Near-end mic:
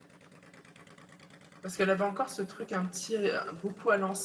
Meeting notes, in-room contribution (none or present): present